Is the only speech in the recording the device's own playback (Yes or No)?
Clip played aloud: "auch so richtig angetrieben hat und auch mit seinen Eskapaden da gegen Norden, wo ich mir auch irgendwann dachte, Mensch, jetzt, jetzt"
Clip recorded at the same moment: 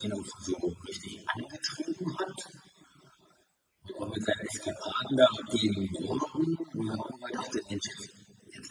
Yes